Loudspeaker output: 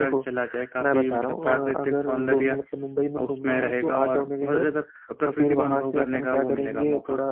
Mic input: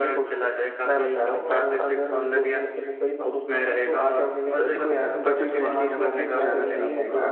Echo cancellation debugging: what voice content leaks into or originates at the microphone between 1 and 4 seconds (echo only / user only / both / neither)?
echo only